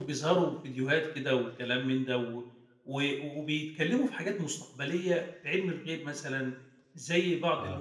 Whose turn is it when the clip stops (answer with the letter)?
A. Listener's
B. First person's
B